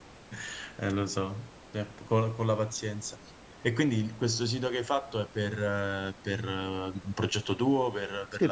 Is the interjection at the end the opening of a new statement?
Yes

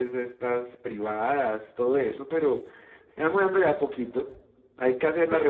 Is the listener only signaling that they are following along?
Yes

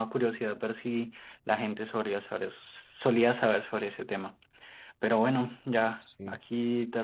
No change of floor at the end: Yes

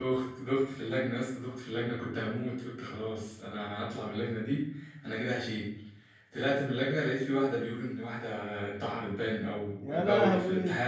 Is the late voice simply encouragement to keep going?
Yes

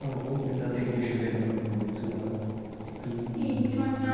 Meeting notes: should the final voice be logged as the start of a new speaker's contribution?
Yes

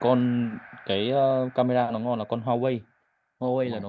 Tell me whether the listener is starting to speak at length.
No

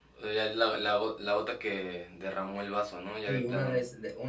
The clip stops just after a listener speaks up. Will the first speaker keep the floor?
No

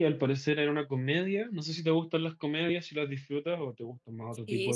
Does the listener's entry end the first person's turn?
Yes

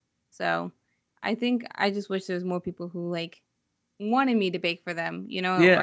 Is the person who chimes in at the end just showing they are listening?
No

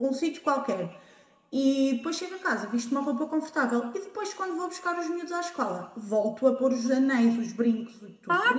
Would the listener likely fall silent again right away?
No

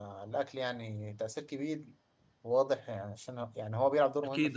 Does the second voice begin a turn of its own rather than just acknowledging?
Yes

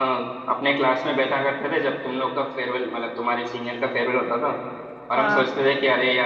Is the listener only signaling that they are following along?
Yes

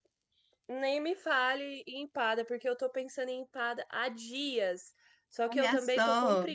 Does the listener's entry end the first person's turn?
No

